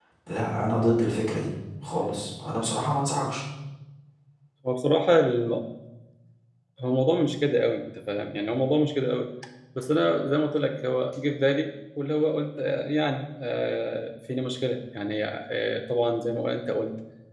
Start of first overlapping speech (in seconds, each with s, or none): none